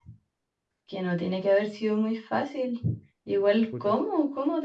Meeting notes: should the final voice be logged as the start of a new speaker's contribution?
No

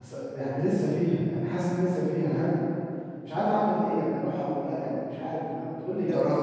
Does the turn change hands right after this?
Yes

